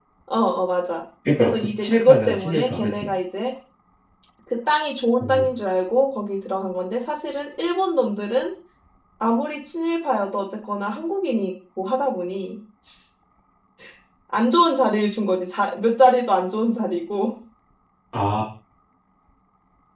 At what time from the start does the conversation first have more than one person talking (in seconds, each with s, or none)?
1.4 s